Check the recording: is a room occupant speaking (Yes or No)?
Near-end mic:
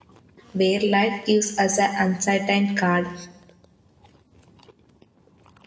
Yes